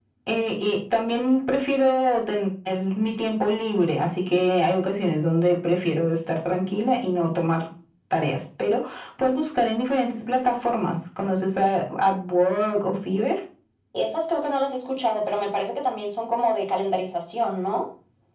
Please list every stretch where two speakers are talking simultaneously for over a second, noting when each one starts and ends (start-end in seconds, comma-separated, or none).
none